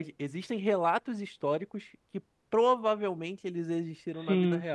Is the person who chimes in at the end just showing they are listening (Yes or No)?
No